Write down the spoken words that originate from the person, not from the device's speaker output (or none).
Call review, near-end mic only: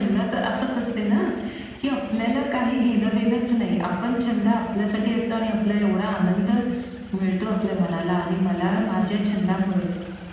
none